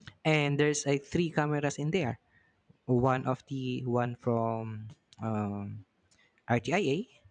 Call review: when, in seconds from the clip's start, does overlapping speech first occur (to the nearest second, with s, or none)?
none